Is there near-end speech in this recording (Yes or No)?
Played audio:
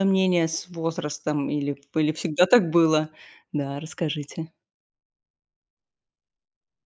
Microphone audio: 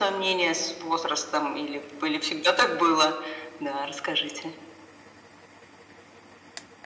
No